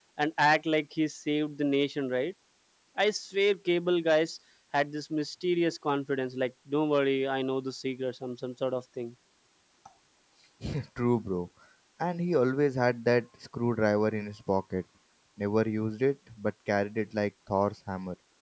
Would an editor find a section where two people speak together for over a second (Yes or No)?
No